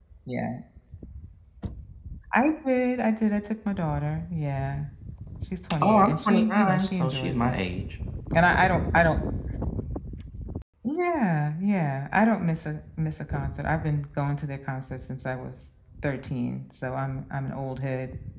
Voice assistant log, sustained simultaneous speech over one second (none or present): present